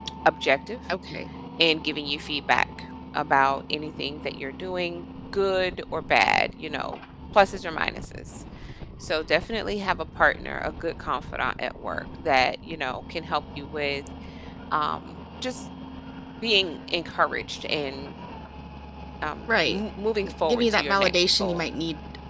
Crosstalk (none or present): present